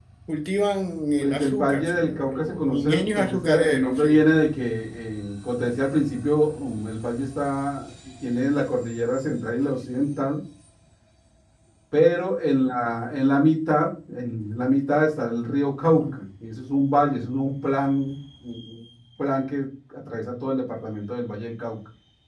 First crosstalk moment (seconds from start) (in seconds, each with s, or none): 1.2 s